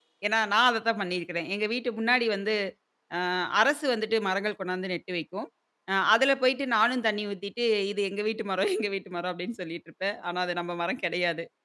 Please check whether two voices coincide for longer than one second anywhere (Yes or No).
No